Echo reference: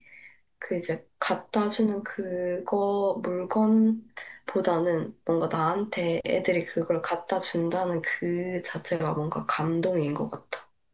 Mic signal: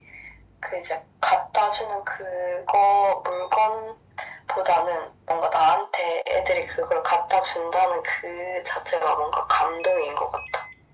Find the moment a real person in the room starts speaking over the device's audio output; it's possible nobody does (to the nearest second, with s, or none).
none